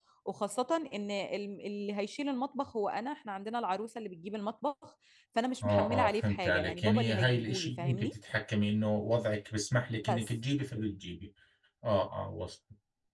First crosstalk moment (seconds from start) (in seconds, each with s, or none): 5.6 s